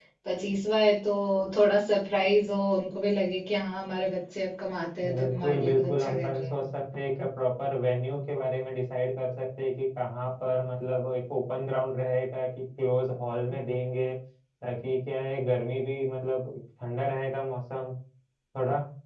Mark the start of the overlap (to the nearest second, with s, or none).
5 s